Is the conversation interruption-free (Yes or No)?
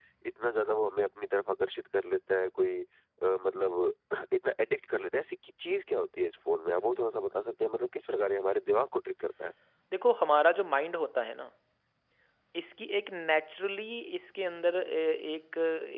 Yes